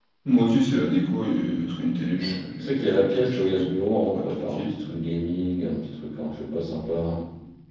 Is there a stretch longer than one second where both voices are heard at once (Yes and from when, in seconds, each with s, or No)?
Yes, from 2.2 s